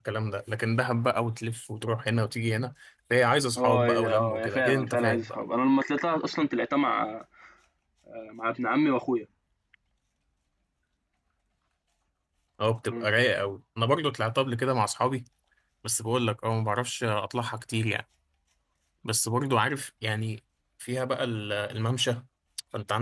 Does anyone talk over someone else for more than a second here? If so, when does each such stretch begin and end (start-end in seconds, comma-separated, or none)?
3.6-5.3